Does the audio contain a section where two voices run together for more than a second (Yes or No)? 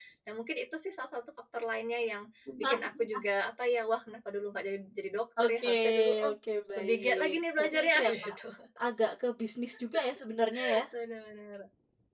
Yes